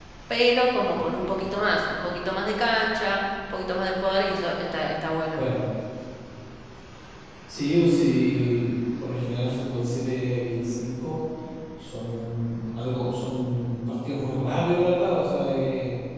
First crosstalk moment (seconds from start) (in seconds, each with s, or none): none